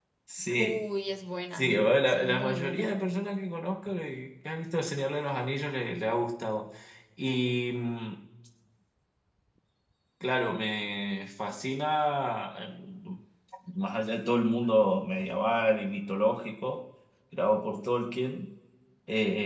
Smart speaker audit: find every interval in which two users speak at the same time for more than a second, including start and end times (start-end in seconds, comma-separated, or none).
1.5-2.9